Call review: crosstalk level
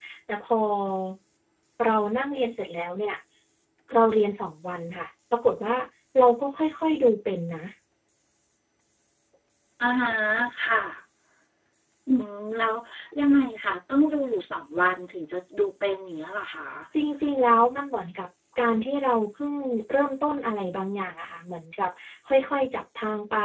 none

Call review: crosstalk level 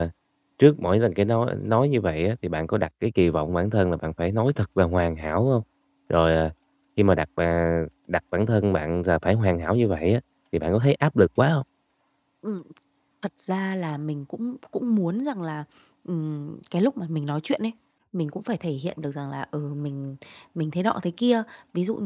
none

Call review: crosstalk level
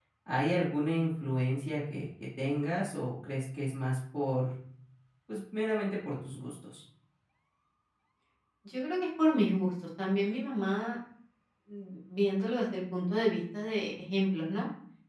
none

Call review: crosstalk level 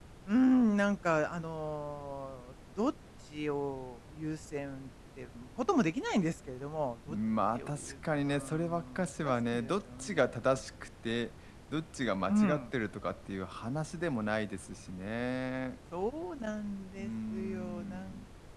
present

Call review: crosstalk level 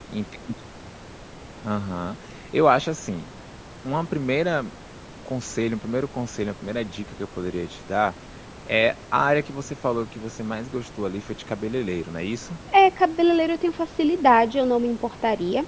none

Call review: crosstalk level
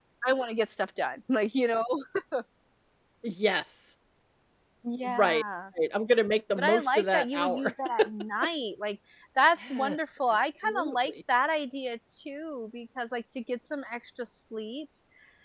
present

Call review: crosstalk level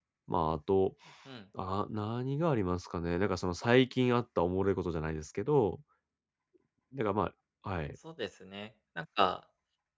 none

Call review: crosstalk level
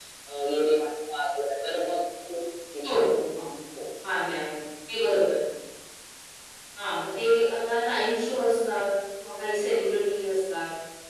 none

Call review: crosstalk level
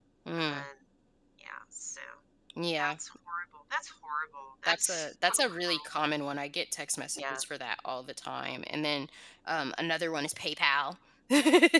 present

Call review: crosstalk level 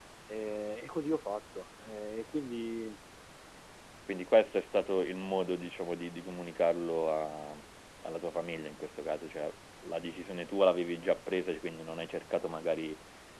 none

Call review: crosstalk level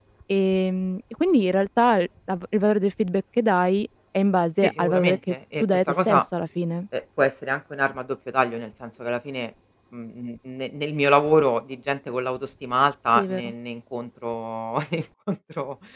present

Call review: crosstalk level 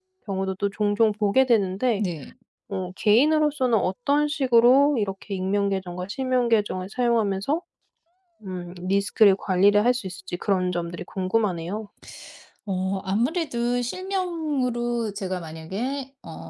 none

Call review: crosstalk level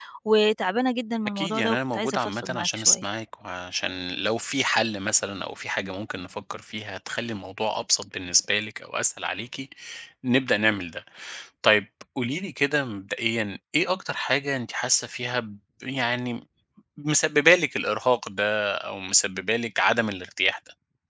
present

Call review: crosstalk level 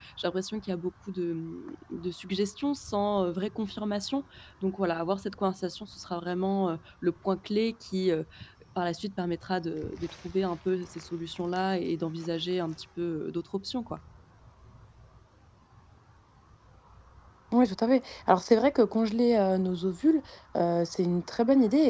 none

